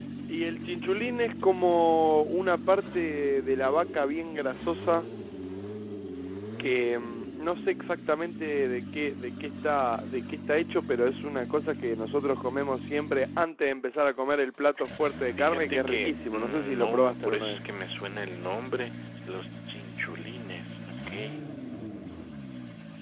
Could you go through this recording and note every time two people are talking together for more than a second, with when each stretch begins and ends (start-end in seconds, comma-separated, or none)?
15.4-17.6